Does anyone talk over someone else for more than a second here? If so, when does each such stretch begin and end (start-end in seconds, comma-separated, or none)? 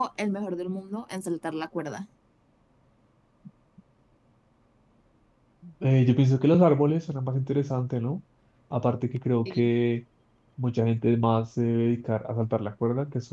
none